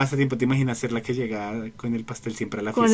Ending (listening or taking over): taking over